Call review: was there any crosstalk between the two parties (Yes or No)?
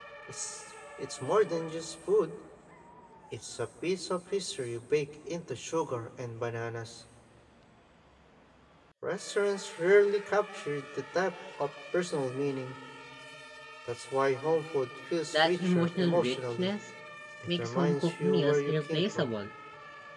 Yes